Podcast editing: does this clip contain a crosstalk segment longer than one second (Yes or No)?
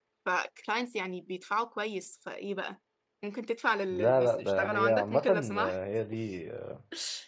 Yes